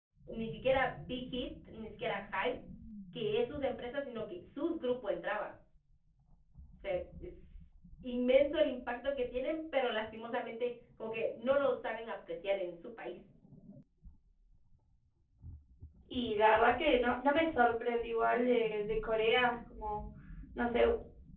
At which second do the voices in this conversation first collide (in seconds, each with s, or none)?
none